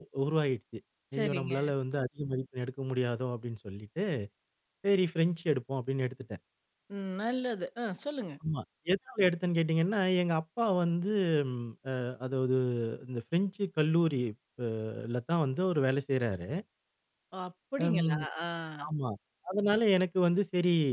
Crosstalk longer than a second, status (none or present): none